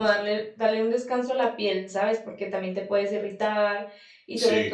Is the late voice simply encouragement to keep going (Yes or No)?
Yes